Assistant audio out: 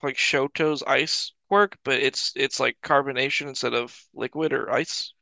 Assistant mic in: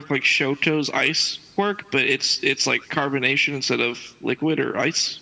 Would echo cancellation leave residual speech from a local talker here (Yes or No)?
No